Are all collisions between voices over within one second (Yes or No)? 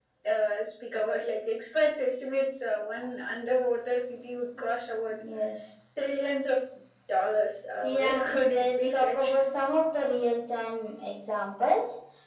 No